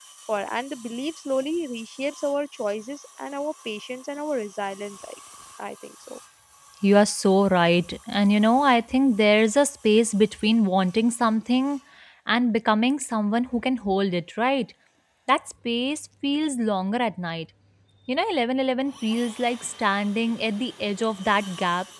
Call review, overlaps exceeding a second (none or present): none